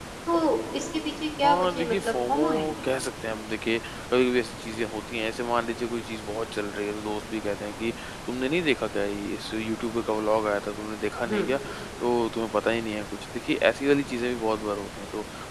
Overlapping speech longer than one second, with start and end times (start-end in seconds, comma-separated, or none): 1.4-2.9